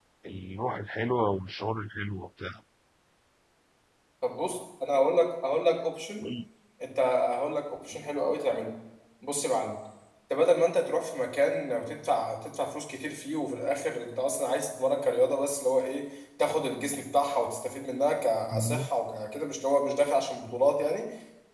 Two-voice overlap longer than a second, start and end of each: none

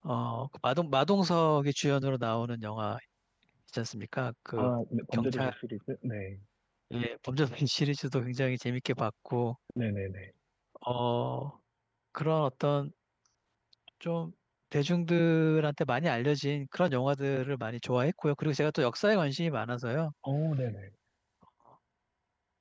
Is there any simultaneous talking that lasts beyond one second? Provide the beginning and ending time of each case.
none

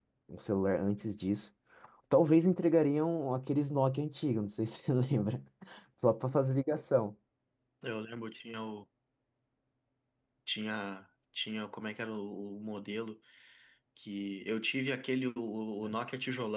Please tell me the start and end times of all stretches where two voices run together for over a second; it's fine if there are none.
none

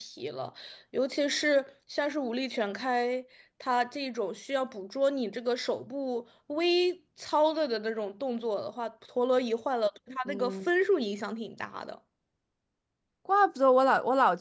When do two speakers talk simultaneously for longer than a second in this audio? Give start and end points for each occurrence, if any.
none

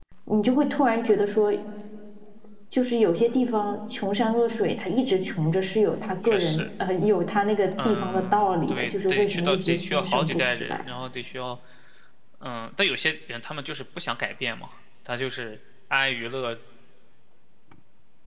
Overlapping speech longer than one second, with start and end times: 7.8-10.8

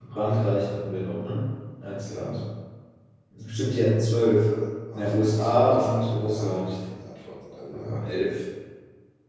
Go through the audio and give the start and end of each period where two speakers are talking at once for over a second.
4.9-6.7

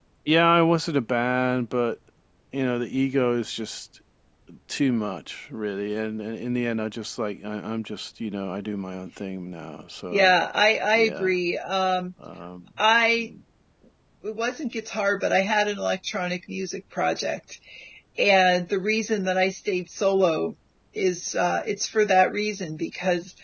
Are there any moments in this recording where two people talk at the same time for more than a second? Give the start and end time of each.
none

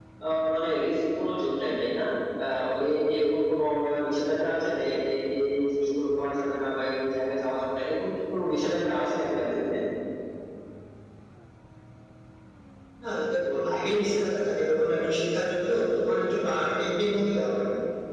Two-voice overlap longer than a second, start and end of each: none

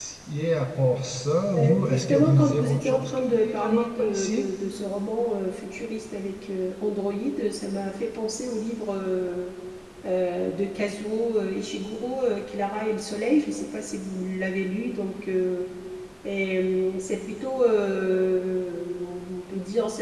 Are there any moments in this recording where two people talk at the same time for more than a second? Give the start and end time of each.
1.5-4.5

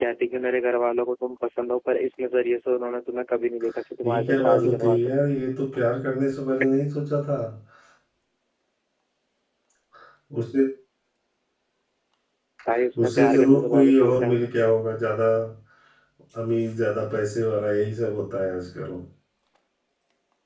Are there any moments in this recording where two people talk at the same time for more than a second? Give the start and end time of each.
4.0-5.3, 13.0-14.5

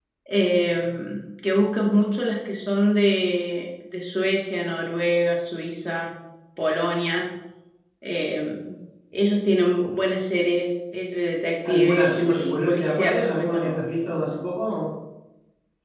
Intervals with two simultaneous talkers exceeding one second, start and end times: 11.7-13.8

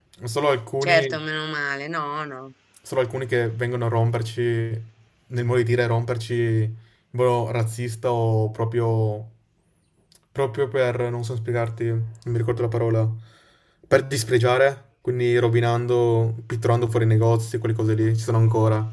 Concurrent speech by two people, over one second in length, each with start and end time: none

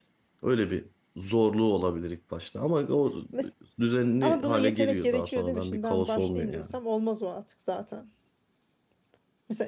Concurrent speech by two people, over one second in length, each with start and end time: 4.2-6.7

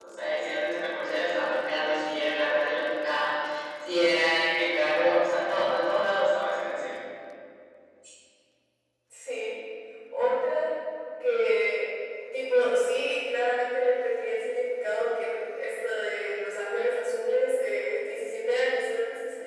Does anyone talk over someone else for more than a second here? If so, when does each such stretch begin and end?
none

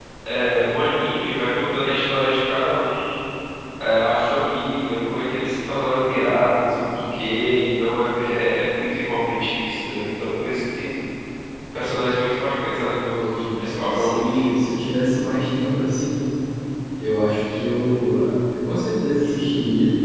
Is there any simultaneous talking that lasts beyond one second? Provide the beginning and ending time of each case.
13.2-14.4

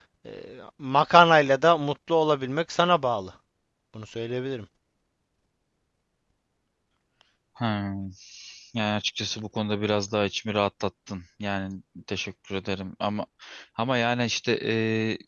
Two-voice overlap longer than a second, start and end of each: none

